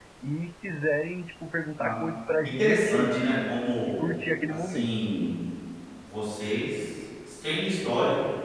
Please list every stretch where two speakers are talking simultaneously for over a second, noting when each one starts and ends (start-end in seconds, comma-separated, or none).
2.4-4.0